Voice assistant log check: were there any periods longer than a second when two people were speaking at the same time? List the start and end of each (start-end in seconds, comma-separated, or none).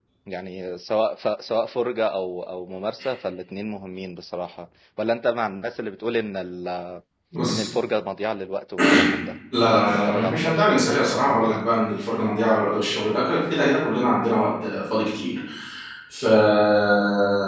9.7-11.6